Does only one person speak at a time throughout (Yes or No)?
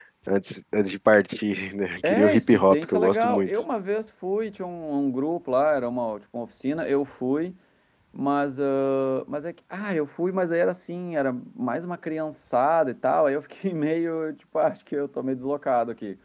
No